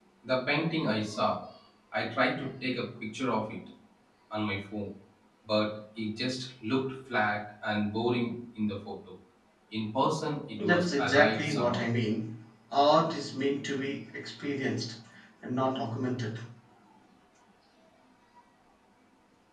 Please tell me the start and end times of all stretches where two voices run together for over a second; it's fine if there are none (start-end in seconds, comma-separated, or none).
10.6-11.8